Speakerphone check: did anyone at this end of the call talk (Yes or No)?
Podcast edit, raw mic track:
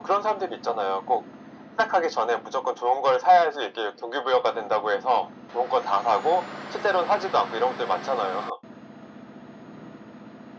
No